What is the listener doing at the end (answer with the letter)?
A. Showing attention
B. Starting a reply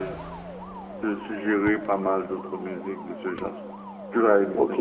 B